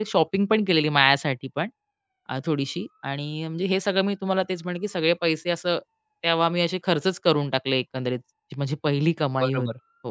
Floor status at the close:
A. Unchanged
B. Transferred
B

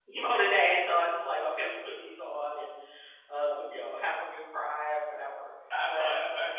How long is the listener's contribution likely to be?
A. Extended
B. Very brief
A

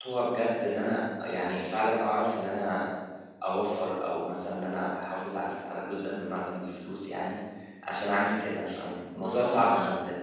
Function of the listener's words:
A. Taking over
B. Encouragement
A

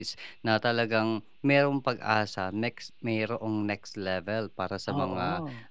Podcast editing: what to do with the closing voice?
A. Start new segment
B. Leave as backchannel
B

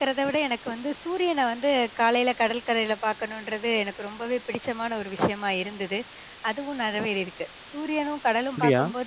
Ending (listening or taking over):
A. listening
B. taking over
A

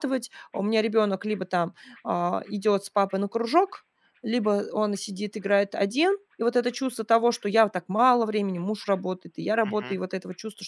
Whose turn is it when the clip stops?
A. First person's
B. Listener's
A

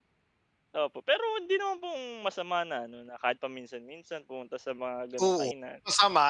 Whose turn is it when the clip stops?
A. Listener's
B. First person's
A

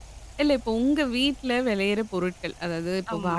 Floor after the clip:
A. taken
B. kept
B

